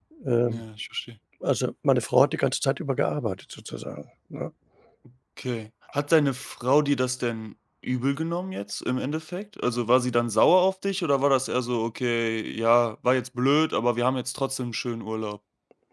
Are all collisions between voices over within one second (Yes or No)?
Yes